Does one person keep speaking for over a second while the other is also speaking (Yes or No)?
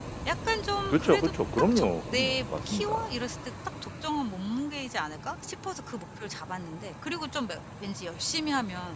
Yes